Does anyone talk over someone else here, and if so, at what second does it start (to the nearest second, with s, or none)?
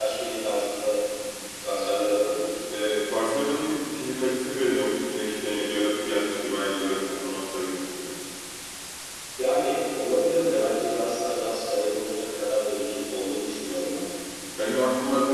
none